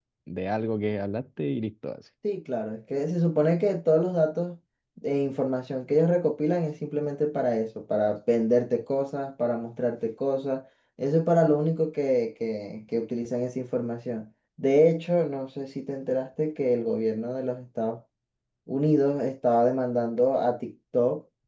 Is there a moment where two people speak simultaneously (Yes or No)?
No